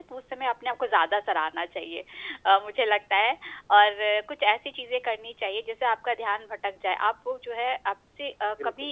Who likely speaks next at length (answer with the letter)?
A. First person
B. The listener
A